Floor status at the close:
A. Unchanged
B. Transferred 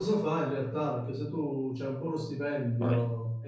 A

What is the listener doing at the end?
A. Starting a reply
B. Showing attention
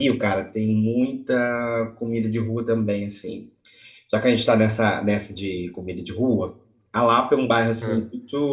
B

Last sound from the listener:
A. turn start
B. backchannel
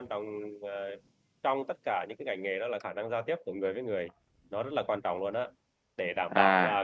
B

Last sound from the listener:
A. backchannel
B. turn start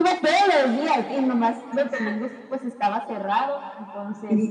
B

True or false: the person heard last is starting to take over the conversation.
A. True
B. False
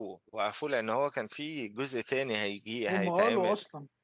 A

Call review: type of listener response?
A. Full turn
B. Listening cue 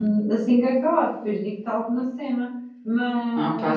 B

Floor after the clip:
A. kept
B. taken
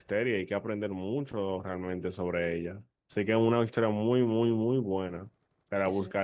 A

